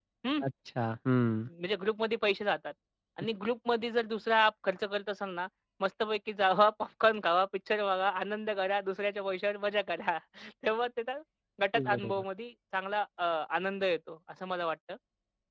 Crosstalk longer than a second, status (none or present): none